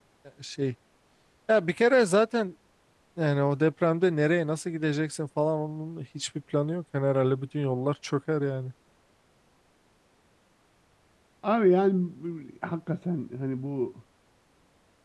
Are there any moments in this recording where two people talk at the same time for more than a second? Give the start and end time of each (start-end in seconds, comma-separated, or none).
none